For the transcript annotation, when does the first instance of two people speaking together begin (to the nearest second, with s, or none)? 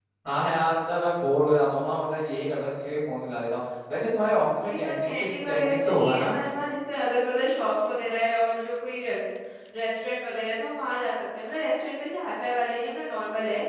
5 s